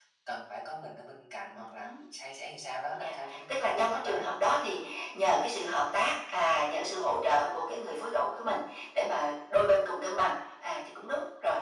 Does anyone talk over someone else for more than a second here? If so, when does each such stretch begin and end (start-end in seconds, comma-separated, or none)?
3.0-4.3